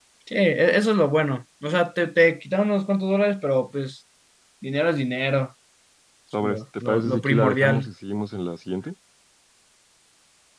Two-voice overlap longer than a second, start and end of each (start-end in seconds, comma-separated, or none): 6.4-7.9